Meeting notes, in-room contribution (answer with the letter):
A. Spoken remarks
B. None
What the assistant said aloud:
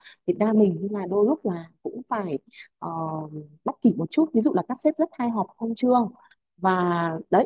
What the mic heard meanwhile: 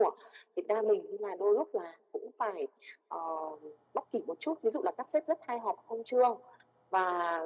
B